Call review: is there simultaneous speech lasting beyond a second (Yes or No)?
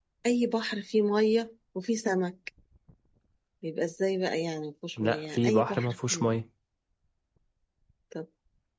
Yes